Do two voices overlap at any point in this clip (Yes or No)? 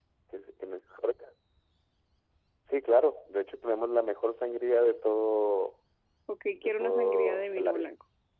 Yes